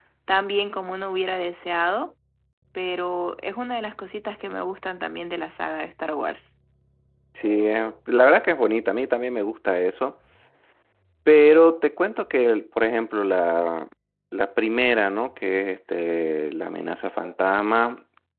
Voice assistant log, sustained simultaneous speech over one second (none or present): none